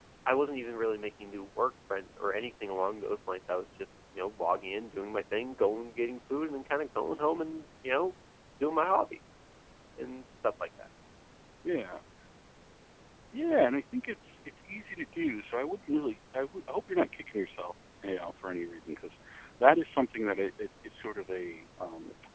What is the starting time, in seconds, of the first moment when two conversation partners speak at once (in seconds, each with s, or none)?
none